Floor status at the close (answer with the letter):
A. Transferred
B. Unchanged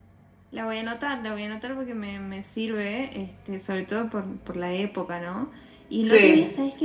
B